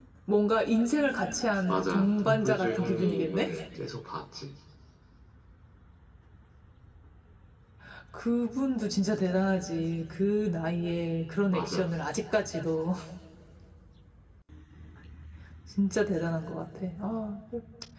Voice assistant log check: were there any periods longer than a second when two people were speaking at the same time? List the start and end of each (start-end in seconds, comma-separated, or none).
1.7-3.5